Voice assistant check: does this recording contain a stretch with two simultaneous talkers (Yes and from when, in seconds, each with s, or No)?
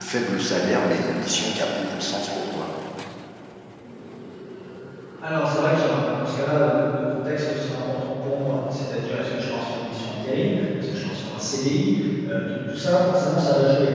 No